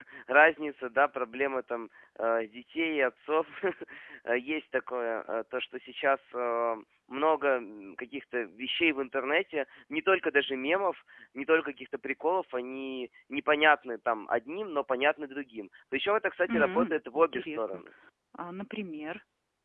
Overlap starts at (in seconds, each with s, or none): 16.5 s